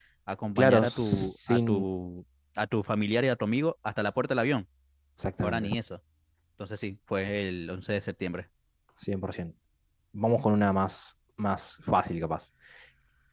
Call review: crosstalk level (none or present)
present